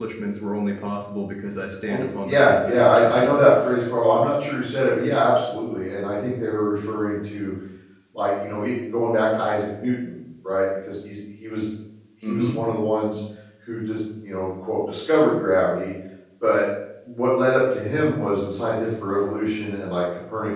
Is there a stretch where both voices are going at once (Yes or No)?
Yes